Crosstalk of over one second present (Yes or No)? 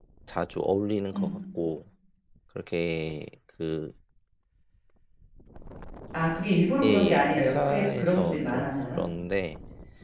Yes